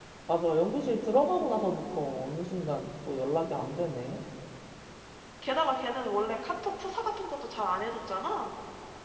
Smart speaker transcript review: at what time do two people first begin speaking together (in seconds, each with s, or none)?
none